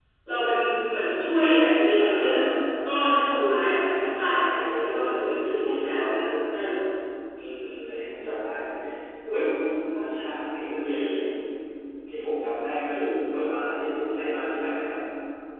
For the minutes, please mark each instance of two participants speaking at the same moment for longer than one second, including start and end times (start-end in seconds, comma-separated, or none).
4.0-6.3